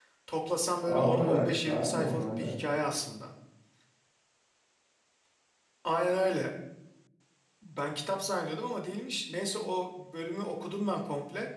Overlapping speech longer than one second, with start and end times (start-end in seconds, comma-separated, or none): 0.8-2.5